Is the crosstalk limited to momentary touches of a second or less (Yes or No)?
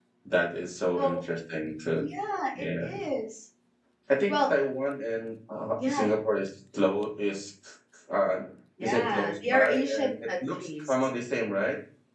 No